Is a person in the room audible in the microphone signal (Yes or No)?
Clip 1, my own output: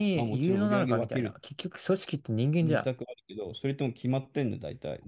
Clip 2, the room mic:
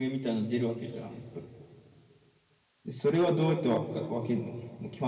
Yes